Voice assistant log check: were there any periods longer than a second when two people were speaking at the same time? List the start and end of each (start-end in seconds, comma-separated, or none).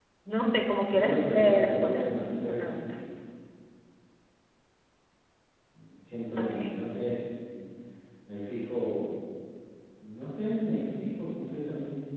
0.9-2.9